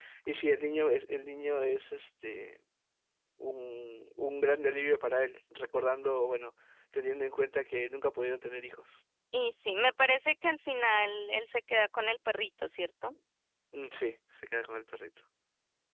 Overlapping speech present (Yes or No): No